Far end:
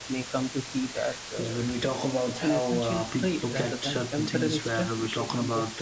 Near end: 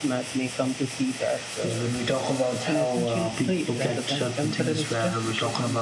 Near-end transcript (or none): none